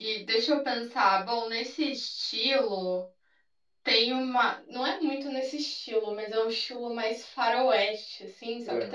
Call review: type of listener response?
listening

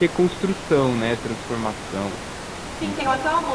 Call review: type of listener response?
taking over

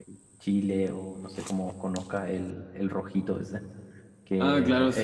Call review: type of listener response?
taking over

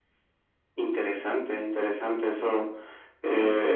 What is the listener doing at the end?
listening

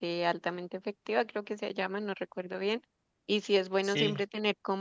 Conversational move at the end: listening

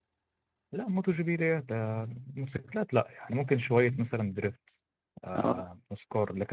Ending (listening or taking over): listening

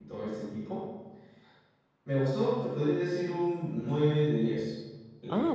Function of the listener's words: listening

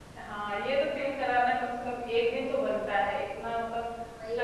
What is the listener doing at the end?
listening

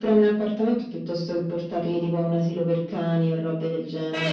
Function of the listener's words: taking over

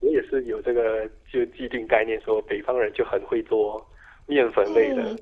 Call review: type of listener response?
taking over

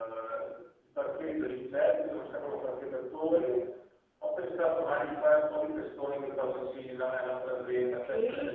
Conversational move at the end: taking over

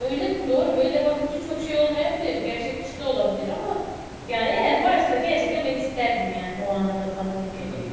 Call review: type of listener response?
taking over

